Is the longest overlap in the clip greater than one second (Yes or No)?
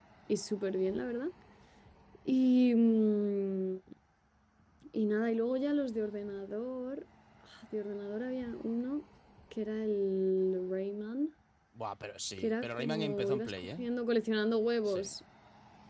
Yes